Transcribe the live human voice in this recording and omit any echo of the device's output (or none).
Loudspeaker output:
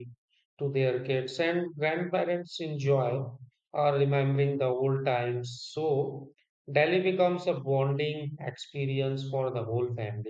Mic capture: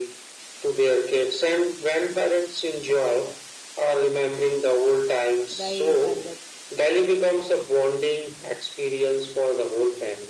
right? And the